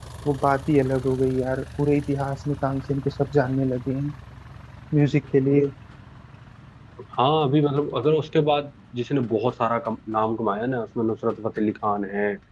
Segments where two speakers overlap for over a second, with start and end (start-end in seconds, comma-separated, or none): none